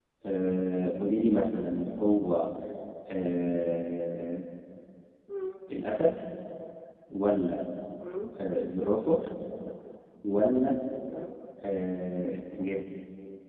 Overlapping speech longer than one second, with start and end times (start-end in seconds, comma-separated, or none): none